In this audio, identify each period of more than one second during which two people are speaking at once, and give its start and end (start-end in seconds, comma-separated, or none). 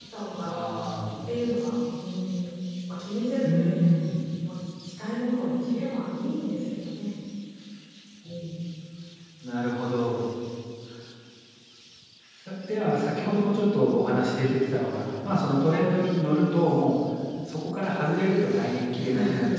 none